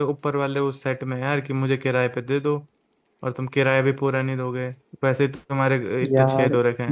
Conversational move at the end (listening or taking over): taking over